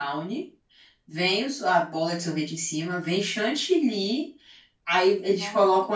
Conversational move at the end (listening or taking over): listening